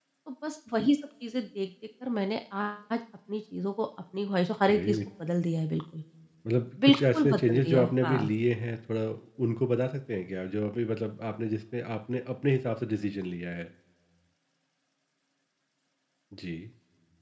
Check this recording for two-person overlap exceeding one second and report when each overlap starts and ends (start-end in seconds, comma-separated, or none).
6.8-8.3